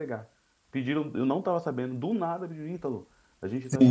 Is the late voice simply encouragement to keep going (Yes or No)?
Yes